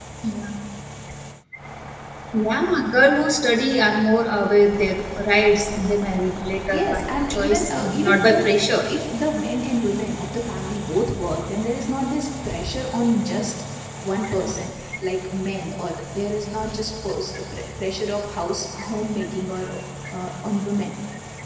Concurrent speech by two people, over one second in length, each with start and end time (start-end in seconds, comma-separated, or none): 6.7-8.5